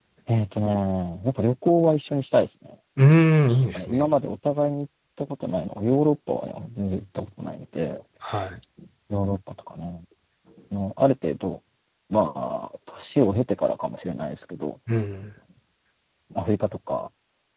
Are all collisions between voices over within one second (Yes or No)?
Yes